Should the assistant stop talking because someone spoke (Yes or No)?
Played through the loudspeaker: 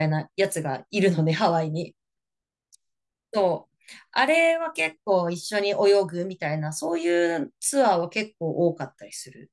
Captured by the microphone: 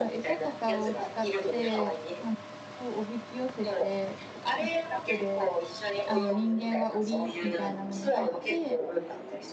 Yes